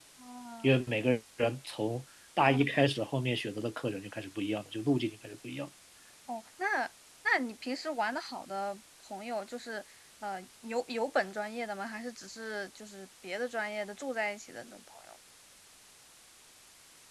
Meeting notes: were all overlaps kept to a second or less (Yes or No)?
Yes